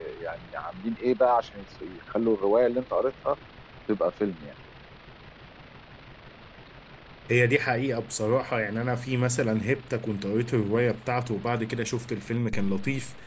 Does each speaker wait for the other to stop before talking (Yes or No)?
Yes